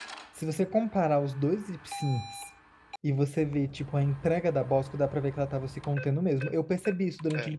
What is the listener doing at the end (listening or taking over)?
listening